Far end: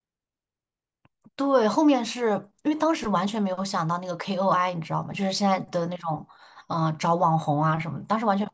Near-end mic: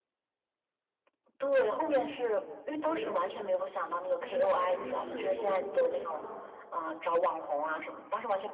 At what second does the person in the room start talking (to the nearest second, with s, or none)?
3 s